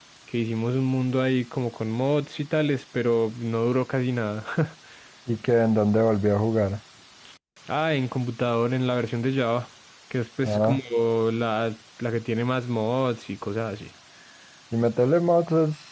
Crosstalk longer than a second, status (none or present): none